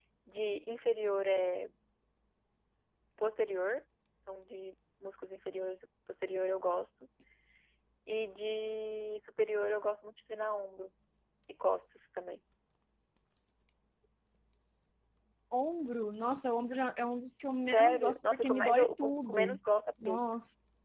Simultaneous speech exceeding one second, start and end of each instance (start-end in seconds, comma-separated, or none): 17.7-19.6